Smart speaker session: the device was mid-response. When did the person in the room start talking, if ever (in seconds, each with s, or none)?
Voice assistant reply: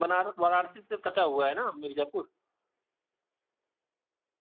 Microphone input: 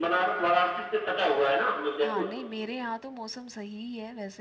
2.0 s